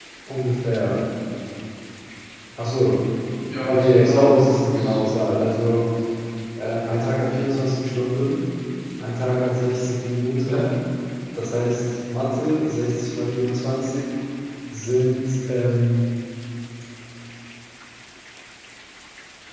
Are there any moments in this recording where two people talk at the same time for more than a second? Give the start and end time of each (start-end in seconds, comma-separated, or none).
3.6-5.0